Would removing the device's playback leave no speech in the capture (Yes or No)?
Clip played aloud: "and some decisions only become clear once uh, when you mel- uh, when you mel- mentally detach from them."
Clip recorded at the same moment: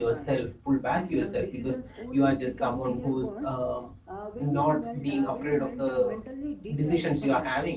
No